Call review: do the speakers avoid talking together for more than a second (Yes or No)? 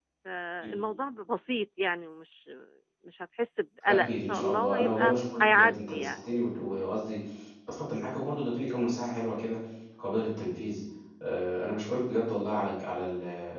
No